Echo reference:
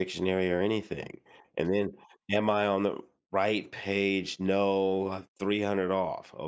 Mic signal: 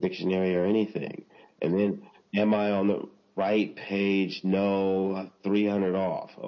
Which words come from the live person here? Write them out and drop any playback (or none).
none